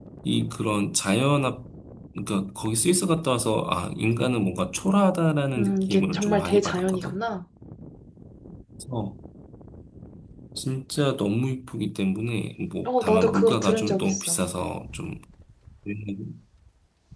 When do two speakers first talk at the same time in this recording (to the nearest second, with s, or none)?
6 s